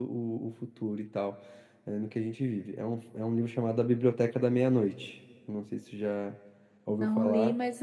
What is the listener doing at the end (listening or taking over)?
taking over